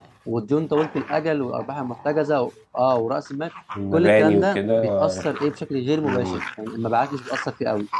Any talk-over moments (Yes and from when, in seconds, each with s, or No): Yes, from 3.9 s